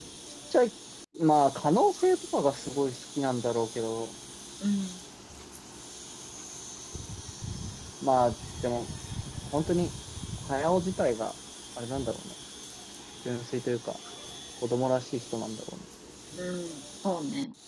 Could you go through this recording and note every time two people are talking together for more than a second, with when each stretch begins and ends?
none

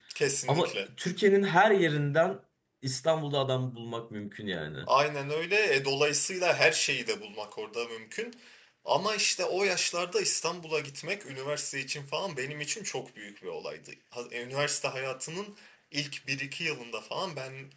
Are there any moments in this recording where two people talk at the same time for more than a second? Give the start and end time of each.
none

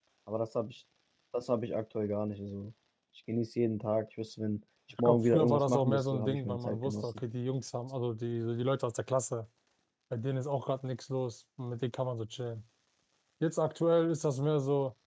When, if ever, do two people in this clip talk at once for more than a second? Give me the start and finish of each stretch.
5.0-7.1

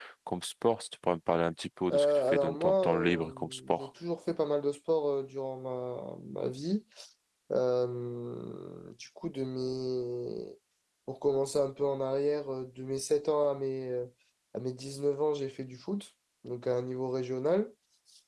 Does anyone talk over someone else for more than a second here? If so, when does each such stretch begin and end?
1.9-3.9

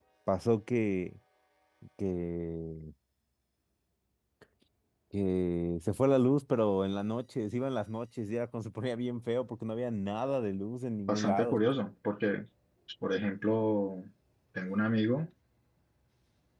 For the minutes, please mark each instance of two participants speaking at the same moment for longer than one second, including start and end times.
none

